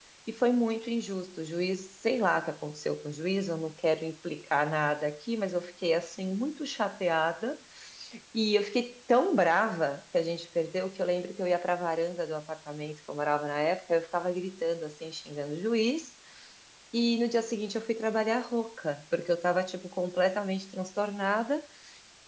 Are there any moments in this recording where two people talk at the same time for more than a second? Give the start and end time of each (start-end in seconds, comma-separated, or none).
none